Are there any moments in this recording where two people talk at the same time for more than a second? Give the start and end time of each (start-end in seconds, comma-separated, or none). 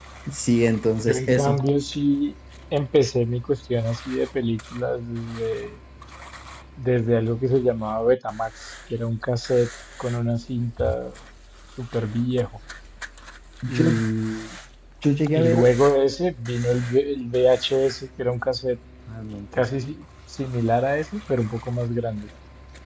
none